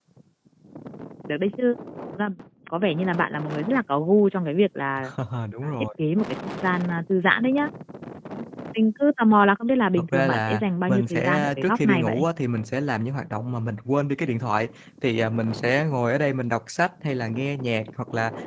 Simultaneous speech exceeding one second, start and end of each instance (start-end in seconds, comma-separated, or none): 10.0-12.2